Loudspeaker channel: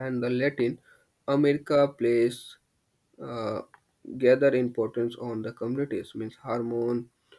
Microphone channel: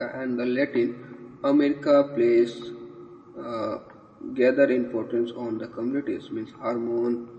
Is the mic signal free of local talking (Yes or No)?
Yes